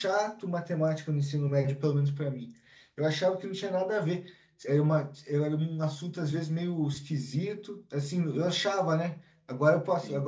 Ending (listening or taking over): listening